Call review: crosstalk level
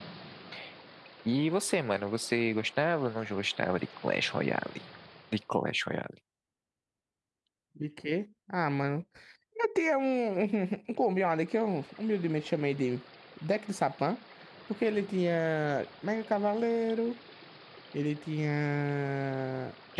none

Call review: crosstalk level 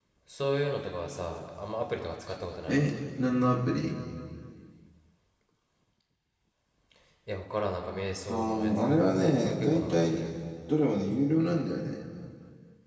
present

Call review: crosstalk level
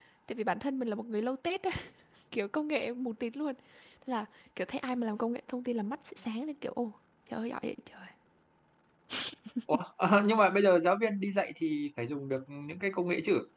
none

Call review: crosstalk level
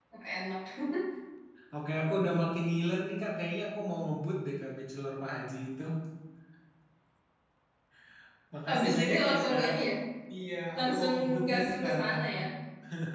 present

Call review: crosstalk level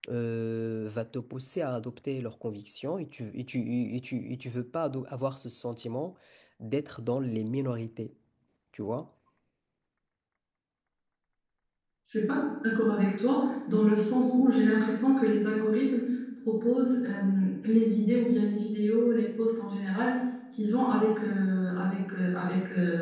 none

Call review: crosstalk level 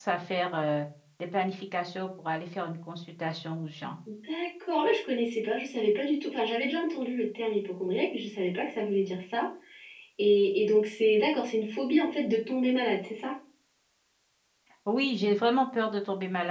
none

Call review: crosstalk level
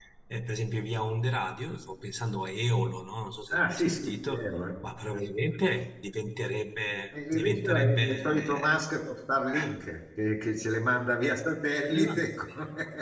present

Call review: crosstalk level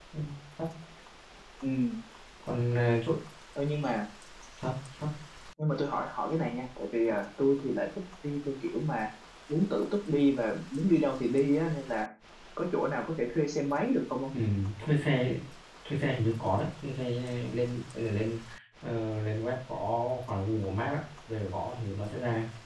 none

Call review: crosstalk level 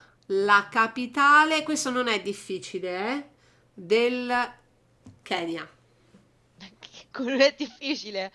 none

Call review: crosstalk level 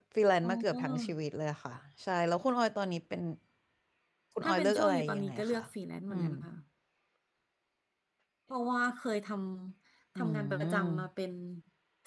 present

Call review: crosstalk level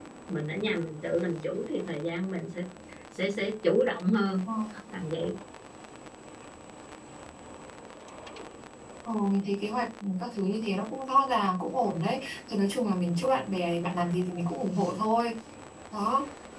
none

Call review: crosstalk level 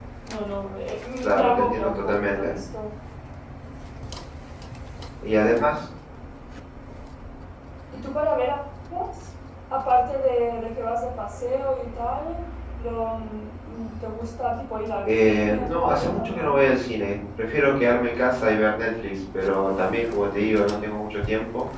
present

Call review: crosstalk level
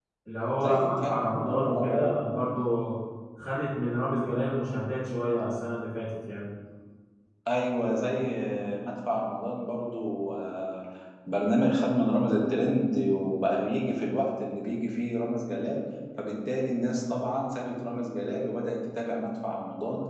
present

